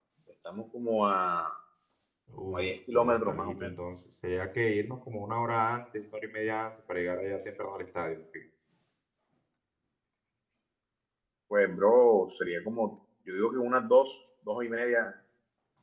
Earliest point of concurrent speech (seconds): 2 s

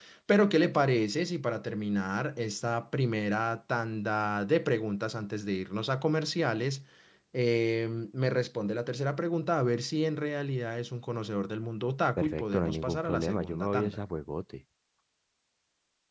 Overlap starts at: 12 s

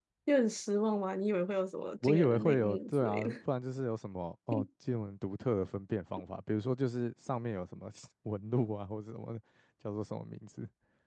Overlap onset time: 2 s

